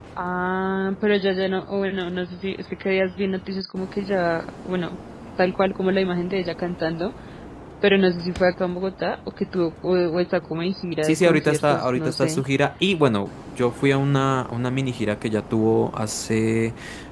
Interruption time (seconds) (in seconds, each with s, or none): 11.0 s